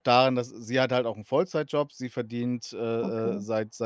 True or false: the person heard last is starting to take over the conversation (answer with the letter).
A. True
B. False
B